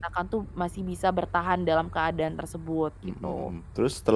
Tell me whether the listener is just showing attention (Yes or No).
No